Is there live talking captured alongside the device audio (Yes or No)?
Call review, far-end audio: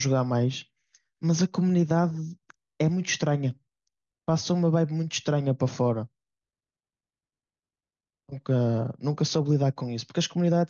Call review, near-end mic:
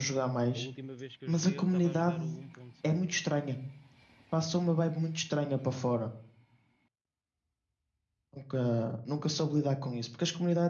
Yes